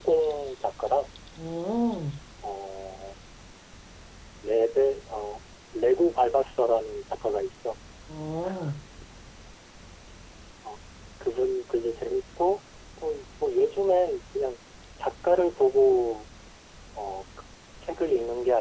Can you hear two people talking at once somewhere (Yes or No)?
No